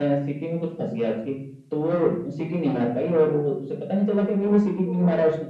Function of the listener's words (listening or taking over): listening